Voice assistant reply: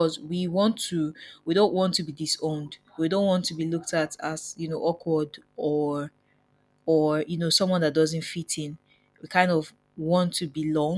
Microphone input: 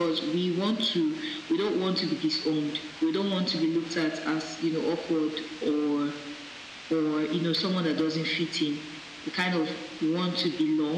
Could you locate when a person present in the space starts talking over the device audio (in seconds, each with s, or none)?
none